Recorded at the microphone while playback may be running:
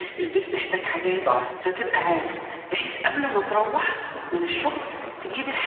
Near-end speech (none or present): present